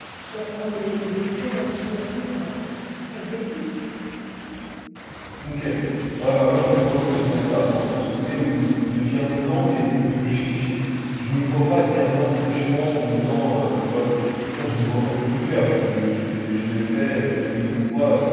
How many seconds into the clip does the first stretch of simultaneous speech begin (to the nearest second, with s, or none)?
none